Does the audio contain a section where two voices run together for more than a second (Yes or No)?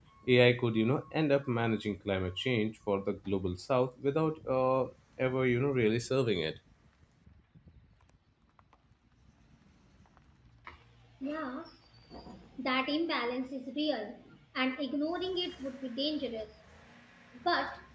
No